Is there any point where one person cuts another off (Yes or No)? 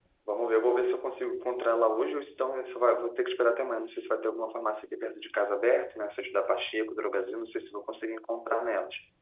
No